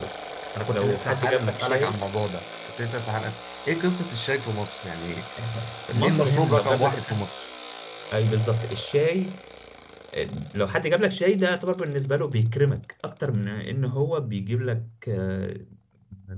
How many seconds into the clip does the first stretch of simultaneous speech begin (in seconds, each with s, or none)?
0.7 s